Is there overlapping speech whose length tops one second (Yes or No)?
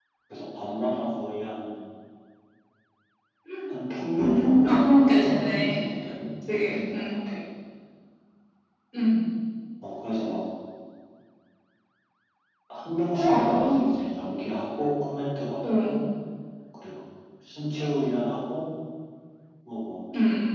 Yes